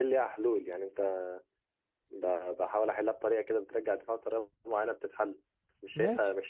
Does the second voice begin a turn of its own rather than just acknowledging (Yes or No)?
Yes